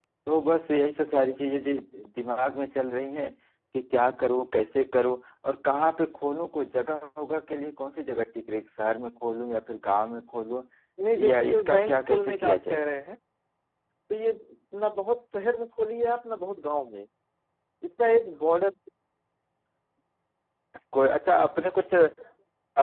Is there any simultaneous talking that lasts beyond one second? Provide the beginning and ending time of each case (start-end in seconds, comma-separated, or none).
11.3-12.8